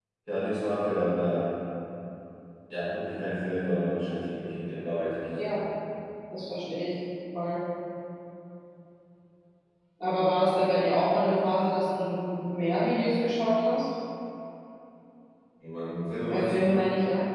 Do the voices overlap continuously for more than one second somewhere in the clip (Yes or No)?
No